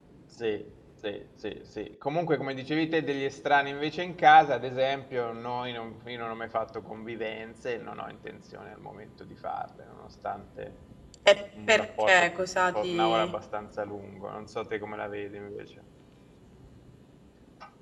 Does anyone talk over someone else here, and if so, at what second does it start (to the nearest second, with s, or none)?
12 s